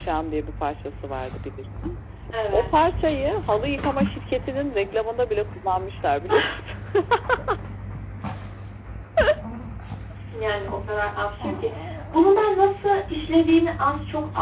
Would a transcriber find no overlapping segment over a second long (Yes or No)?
Yes